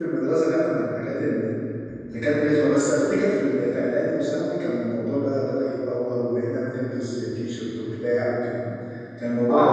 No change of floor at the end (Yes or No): No